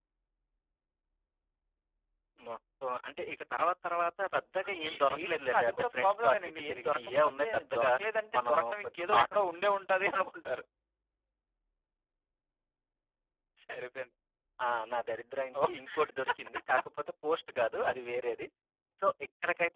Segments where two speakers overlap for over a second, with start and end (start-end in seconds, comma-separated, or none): 4.9-7.9, 8.4-9.8